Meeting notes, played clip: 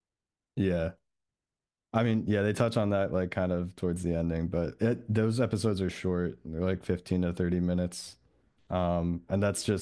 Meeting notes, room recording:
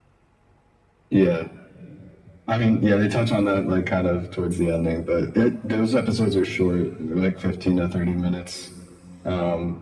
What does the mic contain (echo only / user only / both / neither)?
echo only